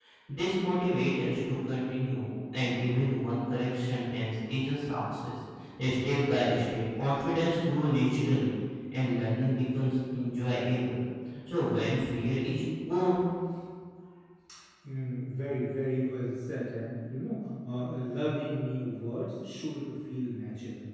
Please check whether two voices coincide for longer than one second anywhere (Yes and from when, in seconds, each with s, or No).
No